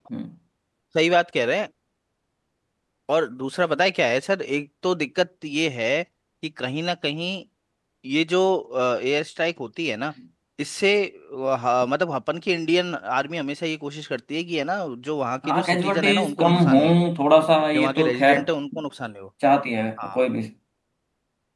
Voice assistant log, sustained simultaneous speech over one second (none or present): present